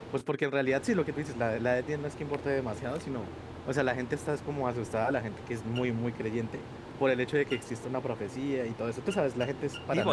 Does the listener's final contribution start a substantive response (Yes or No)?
Yes